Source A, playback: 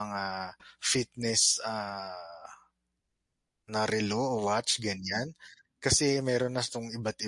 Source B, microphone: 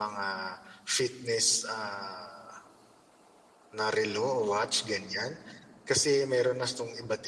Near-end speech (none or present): none